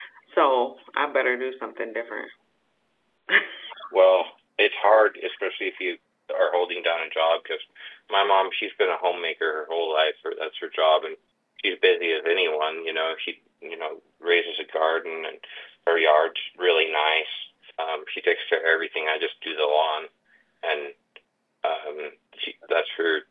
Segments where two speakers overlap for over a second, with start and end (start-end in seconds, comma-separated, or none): none